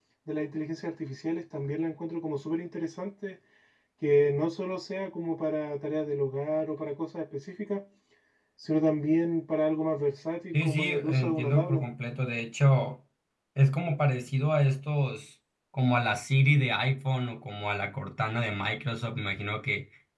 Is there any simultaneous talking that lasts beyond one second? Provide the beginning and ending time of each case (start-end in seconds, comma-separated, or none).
10.5-11.8